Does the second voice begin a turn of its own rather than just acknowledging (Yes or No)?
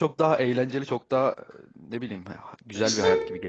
Yes